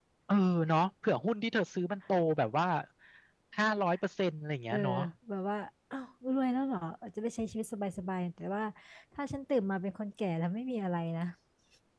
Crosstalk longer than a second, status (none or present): none